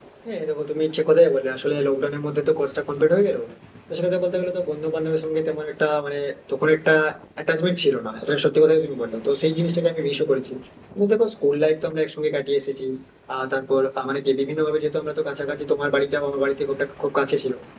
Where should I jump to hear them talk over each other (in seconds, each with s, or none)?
none